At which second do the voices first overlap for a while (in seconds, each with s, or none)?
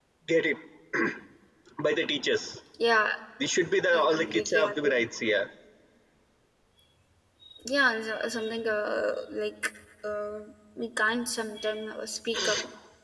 4.0 s